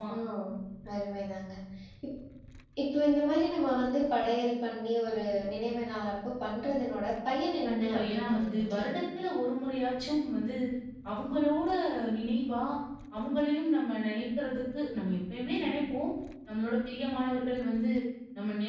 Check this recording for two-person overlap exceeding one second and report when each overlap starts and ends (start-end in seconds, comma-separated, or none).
7.7-9.0